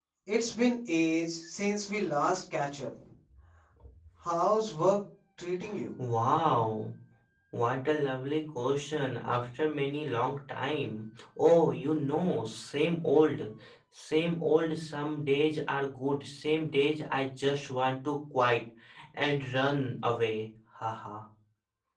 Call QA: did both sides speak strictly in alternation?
Yes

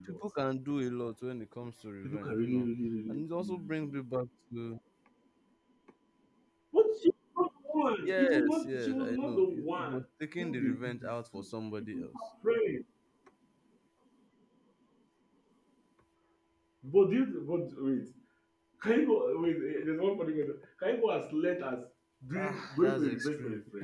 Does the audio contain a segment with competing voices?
Yes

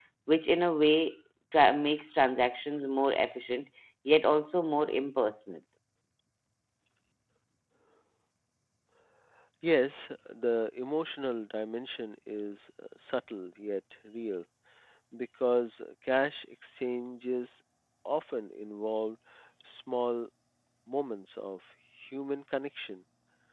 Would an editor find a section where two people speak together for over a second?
No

